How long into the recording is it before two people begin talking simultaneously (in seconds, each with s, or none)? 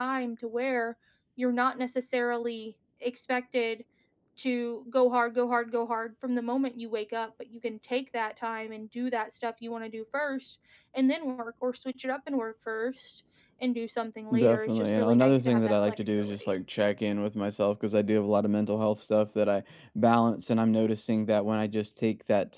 14.4 s